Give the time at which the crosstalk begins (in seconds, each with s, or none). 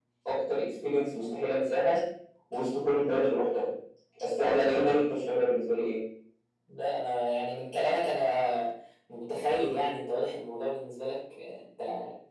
none